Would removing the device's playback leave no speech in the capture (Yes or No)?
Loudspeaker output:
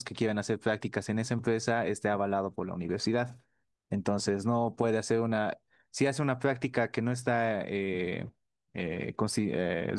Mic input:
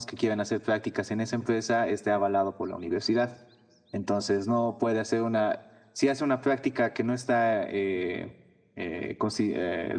Yes